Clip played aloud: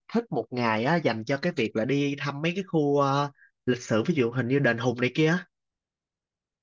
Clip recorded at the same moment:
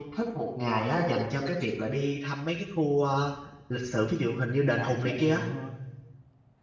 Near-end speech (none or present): present